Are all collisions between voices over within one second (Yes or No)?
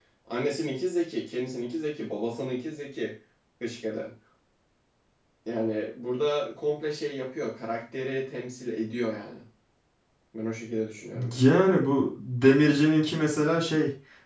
Yes